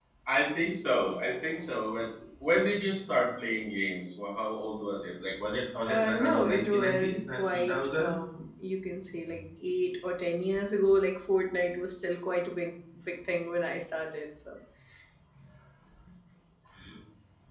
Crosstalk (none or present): present